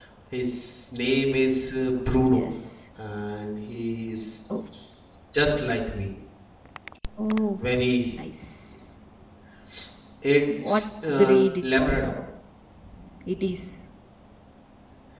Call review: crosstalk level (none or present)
present